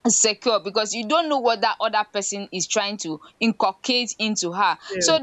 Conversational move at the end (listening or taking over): listening